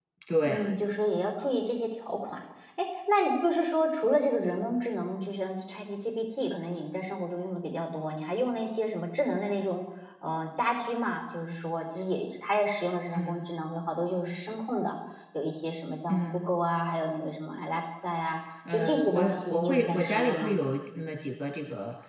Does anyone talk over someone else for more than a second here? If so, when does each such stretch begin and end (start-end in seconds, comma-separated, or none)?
18.7-20.6